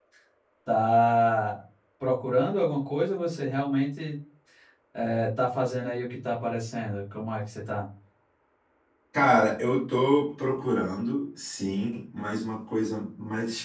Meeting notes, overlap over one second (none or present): none